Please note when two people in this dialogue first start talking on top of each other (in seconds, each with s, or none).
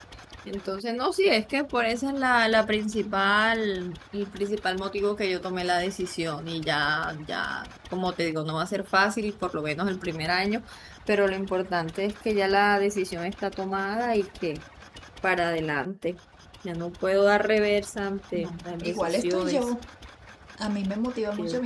18.3 s